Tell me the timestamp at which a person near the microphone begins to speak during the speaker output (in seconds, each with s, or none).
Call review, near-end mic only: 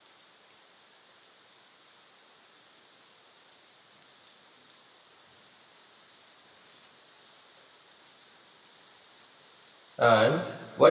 10.0 s